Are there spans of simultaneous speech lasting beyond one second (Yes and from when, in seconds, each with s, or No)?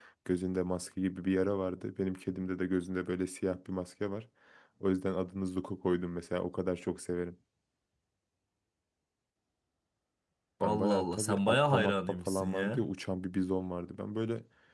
Yes, from 10.6 s